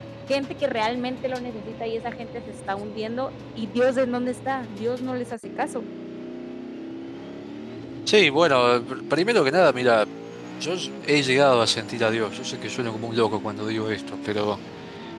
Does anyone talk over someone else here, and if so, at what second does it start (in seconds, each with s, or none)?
none